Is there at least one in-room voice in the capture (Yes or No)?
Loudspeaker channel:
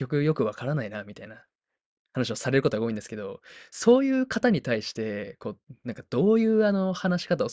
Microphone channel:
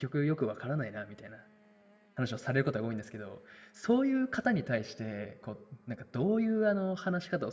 No